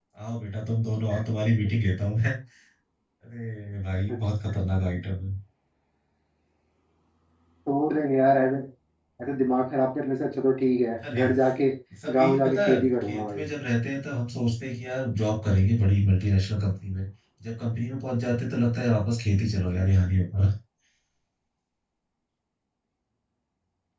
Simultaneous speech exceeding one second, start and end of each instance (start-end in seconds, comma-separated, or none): 12.1-13.4